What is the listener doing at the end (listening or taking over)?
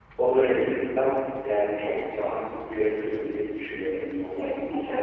taking over